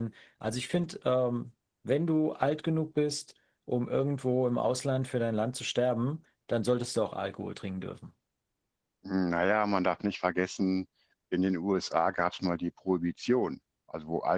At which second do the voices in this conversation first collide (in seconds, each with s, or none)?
none